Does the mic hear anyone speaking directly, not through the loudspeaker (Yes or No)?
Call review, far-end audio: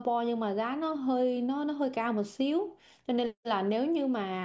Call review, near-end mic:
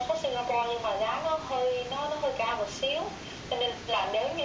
No